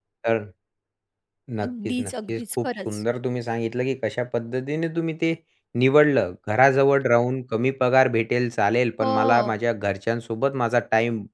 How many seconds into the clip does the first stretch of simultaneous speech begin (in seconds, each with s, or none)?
1.7 s